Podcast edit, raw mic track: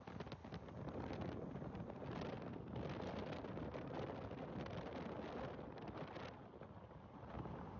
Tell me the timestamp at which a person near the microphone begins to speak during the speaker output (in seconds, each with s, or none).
none